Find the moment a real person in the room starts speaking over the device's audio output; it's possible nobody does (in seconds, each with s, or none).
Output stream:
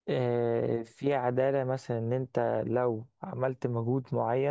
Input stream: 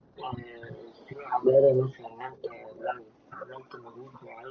none